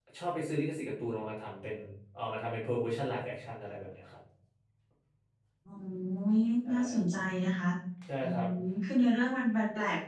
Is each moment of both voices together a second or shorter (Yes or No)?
Yes